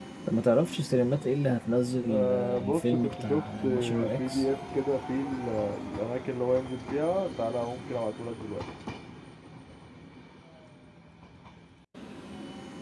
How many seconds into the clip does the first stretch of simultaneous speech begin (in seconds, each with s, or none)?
2.1 s